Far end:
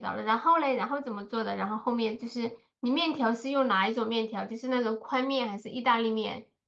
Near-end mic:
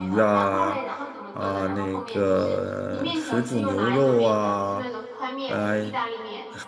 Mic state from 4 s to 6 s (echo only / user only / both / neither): both